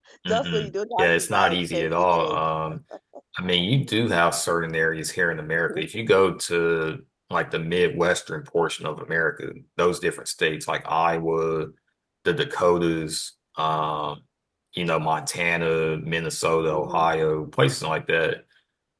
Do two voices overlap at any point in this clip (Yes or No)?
Yes